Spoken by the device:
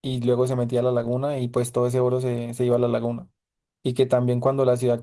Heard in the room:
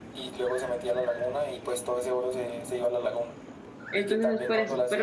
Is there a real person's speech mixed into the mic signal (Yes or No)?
Yes